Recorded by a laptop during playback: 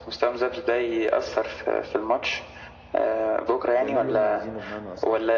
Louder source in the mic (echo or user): echo